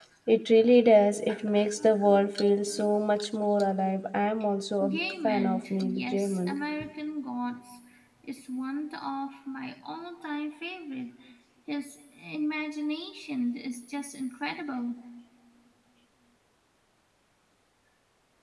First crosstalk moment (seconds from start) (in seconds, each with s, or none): 4.8 s